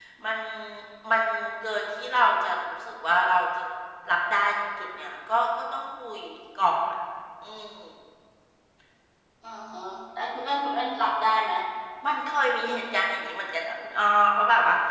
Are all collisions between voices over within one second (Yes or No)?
Yes